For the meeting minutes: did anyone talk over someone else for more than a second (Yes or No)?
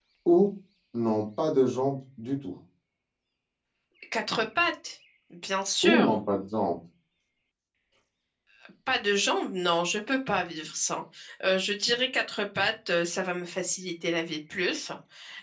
No